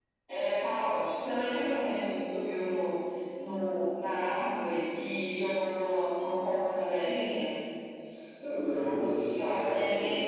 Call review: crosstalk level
present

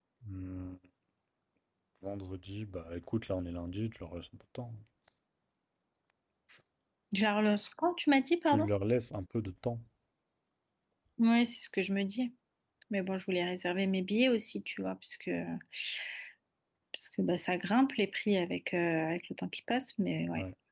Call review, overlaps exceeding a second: none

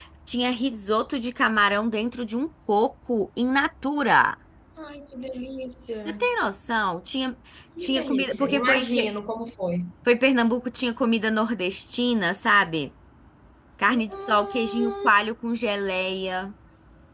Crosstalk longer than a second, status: present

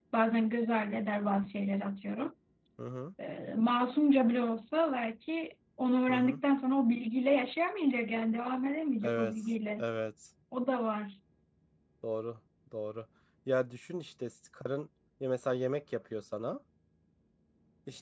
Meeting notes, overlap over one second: none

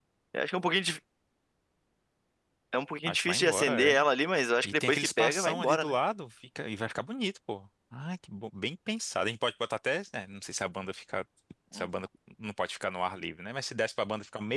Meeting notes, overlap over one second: present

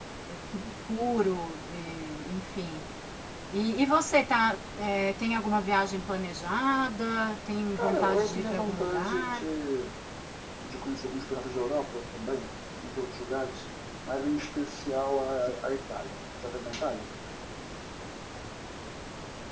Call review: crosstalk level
present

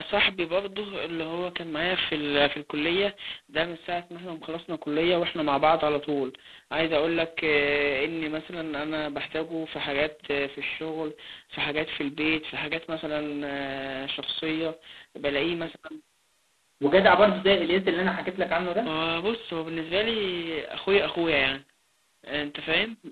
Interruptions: none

